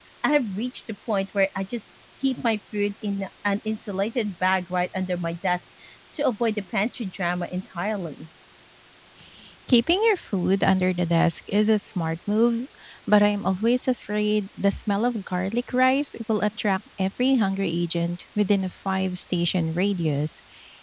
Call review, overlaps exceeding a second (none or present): none